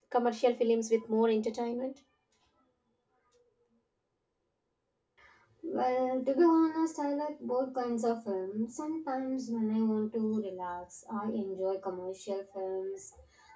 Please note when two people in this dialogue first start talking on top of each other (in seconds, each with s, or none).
none